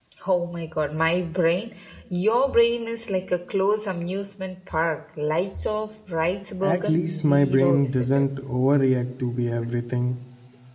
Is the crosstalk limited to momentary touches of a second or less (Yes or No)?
No